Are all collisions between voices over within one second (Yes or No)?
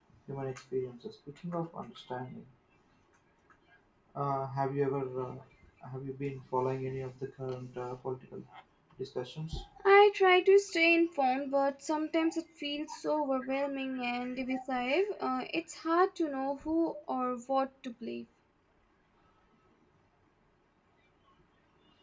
Yes